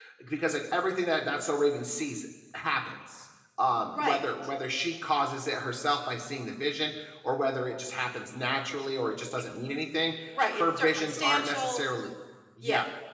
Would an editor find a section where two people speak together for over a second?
Yes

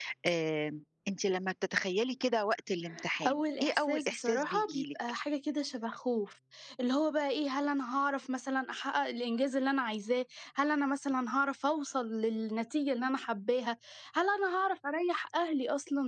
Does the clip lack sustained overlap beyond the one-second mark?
No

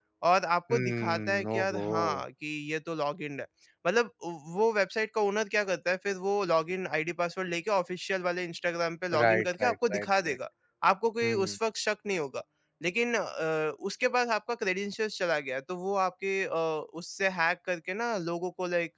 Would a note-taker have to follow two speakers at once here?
Yes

